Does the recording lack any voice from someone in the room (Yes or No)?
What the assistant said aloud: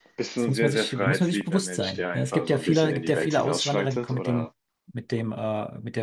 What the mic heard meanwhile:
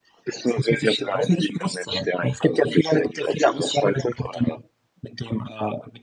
Yes